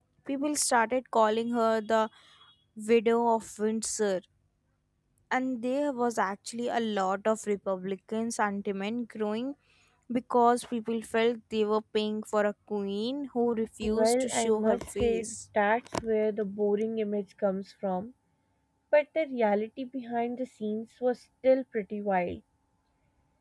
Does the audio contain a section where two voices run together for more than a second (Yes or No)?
Yes